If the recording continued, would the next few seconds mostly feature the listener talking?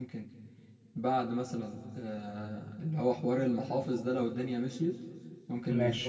No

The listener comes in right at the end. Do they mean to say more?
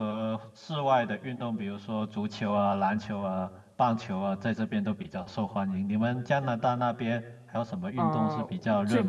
Yes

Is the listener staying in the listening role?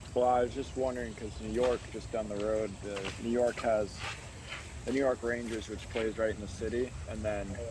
Yes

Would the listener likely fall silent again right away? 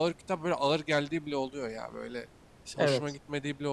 Yes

